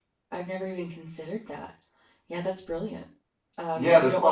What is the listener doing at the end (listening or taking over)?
taking over